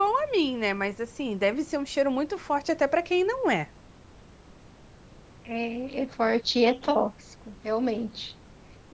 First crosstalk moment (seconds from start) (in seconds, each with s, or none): none